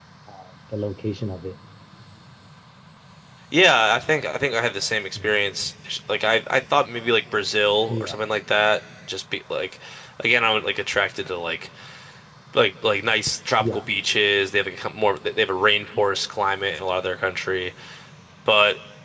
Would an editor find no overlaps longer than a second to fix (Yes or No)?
Yes